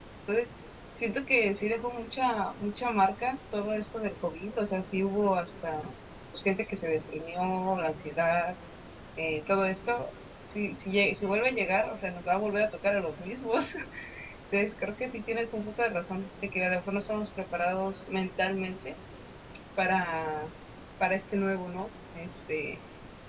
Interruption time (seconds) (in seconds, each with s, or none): none